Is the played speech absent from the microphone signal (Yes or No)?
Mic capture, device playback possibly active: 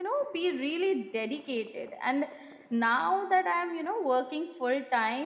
Yes